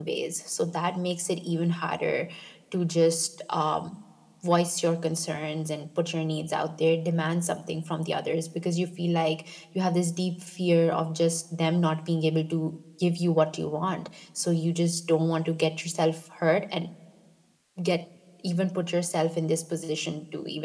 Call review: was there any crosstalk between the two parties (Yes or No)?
No